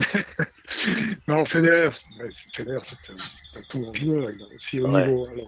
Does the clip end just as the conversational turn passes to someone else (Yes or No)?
No